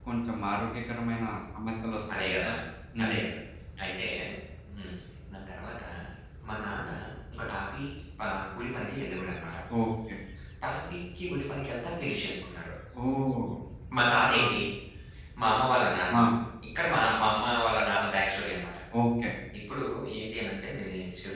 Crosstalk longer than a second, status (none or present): none